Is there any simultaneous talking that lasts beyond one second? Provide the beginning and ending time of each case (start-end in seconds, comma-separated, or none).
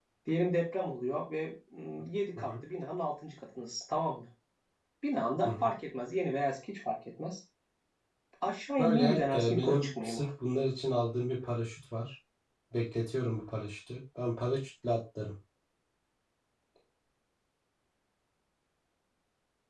8.8-10.2